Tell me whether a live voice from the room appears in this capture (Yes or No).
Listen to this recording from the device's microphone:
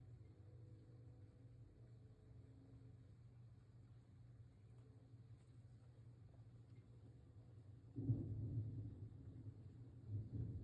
No